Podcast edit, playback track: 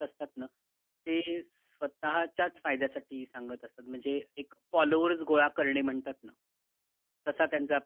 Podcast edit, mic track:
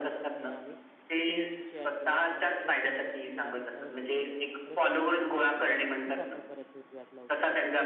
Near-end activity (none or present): present